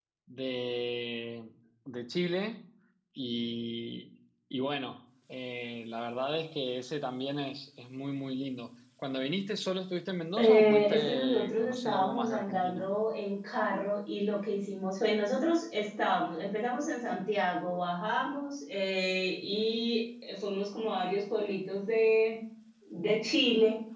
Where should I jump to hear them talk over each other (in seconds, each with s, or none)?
10.4 s